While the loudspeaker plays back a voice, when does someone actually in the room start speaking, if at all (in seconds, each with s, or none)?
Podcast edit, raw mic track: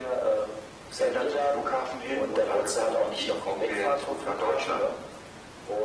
none